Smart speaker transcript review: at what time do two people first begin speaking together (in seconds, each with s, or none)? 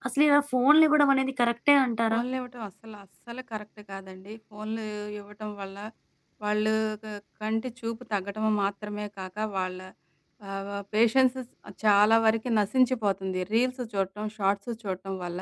none